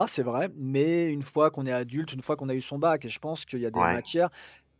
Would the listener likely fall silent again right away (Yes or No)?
Yes